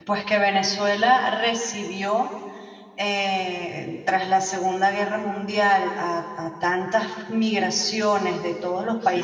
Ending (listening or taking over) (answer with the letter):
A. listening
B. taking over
A